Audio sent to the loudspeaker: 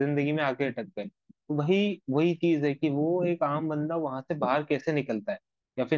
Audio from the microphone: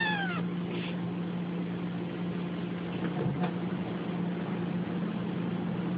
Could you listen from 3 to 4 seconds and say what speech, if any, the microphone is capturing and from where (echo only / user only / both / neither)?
neither